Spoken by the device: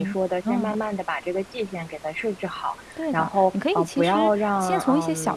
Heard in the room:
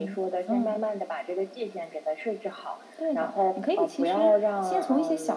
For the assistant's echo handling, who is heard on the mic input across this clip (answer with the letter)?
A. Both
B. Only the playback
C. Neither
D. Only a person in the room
B